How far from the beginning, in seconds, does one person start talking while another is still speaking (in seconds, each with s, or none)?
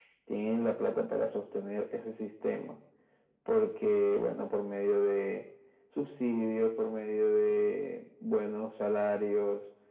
none